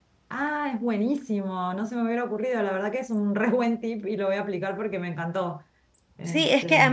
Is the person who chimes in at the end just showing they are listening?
No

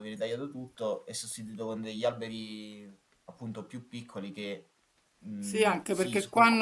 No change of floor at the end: No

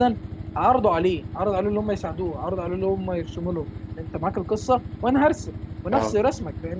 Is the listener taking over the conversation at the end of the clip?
No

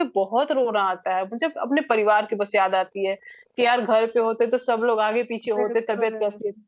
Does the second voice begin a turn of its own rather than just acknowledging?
No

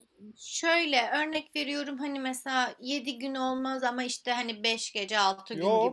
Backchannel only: No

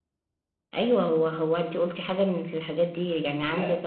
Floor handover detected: No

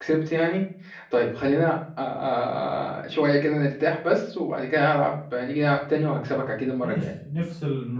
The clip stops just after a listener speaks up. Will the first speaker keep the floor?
No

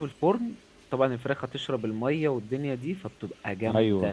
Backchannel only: Yes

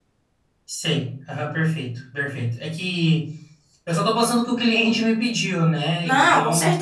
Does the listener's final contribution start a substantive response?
Yes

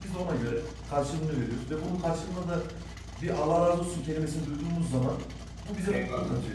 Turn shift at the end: Yes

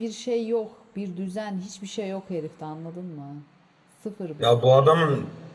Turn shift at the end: Yes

